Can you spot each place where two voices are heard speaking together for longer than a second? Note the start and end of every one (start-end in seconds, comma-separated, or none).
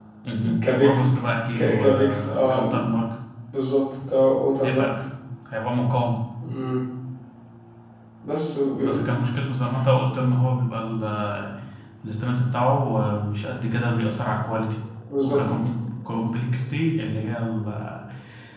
1.6-2.9